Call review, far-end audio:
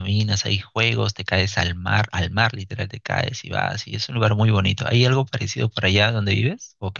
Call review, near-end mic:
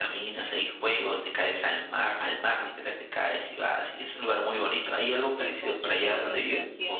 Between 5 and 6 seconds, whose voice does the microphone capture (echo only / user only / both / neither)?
both